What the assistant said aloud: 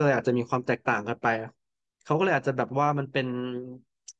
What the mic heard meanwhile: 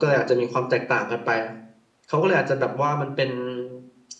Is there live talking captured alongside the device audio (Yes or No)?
No